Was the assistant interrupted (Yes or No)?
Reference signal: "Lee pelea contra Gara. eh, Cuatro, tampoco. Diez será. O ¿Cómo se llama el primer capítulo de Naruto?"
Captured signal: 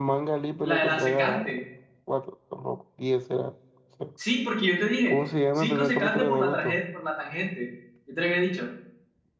Yes